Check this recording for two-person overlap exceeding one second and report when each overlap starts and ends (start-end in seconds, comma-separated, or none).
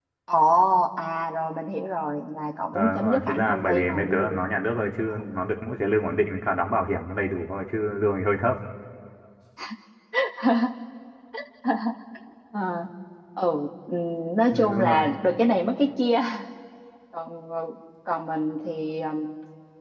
2.7-4.4